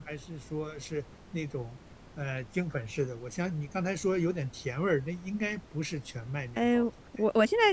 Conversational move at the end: taking over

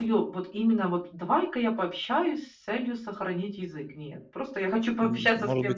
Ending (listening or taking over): taking over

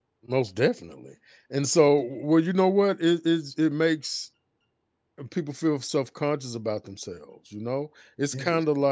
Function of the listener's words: listening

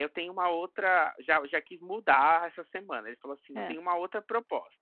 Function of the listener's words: listening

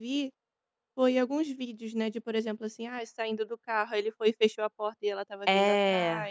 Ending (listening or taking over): listening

